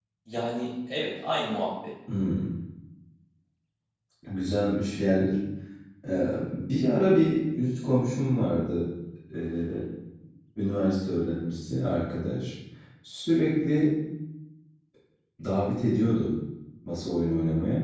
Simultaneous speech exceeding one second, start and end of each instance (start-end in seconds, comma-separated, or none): none